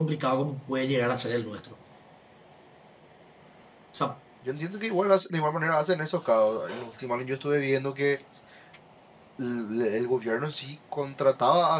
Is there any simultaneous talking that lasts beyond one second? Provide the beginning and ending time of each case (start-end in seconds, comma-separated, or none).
none